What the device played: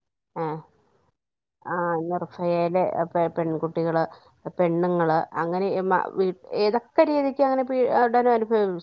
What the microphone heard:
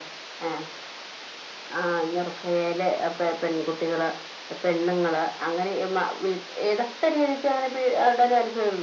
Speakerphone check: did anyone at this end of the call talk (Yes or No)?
No